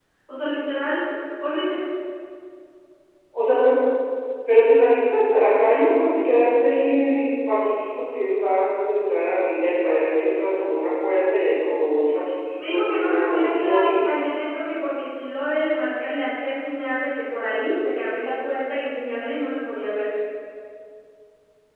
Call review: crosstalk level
present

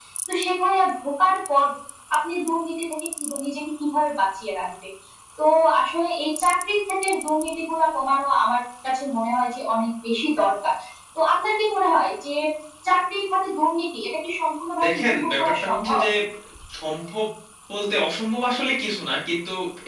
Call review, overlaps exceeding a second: present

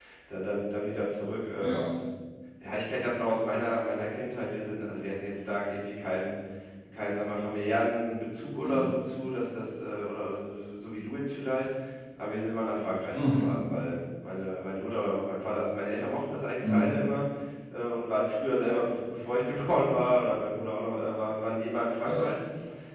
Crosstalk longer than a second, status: none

